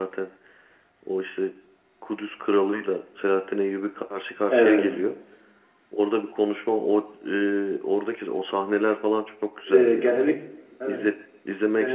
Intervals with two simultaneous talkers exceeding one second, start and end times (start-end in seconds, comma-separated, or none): none